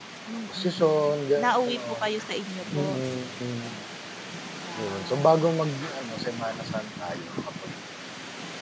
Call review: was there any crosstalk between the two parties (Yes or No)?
Yes